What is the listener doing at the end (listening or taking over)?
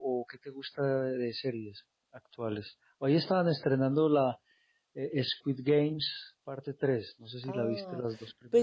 taking over